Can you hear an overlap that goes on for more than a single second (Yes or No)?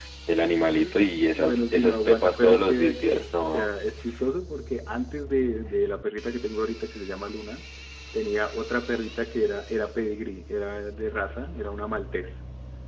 Yes